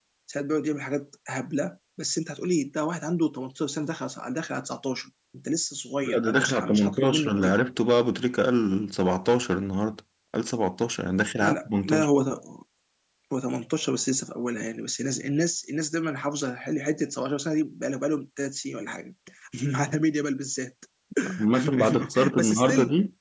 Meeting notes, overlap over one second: present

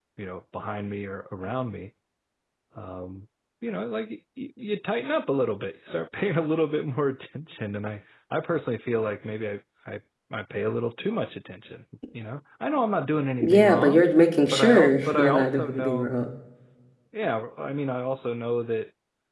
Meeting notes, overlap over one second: present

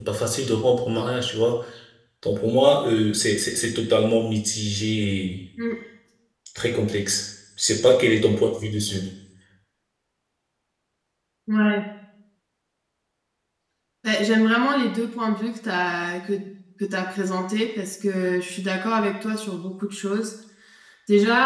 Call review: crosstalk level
none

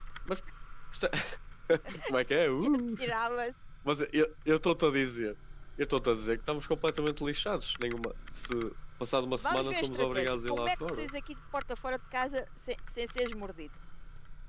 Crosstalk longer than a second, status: present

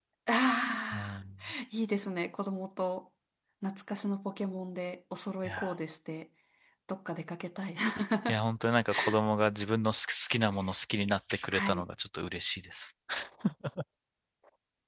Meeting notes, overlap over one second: none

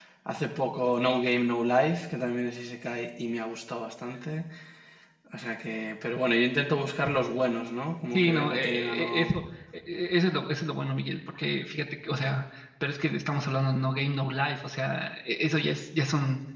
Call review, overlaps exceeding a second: present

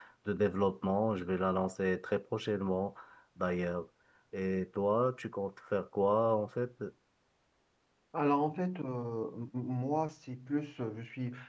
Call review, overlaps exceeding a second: none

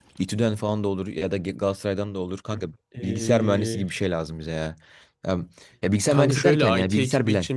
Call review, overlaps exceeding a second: present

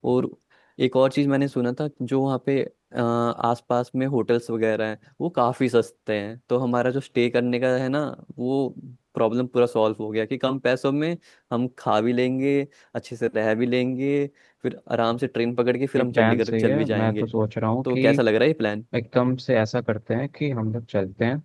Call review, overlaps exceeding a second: present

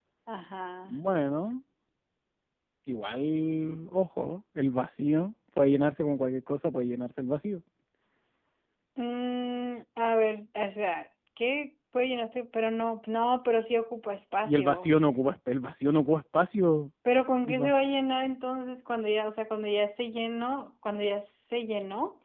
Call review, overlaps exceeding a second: none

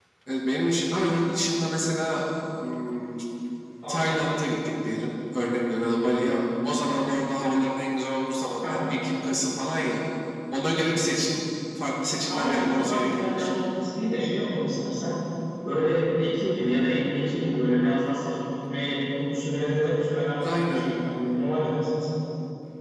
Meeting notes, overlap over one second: present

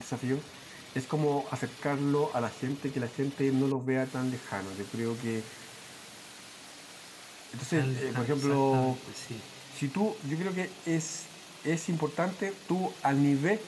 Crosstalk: present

